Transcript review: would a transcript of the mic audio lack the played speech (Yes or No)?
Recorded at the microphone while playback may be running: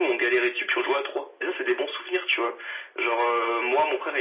No